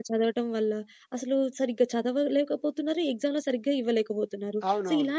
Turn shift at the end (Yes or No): No